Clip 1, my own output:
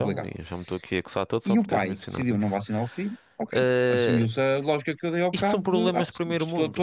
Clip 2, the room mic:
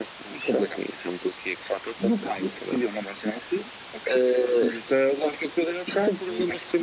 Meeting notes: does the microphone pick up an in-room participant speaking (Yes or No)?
No